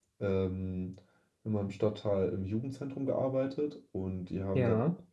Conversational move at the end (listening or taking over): listening